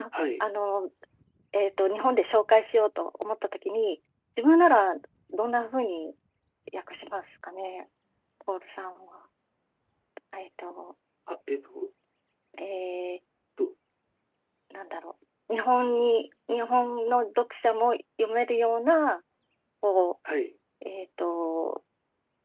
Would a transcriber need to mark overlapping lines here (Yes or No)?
No